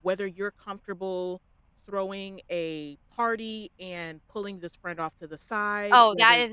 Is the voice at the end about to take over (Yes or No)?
Yes